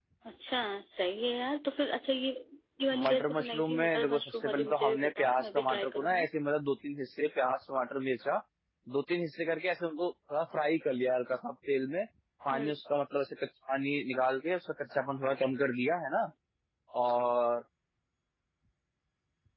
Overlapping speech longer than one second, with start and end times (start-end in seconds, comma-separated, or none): 2.9-6.3